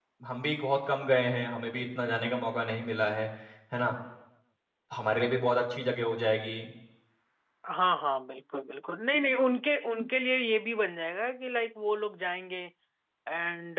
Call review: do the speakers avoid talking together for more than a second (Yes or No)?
Yes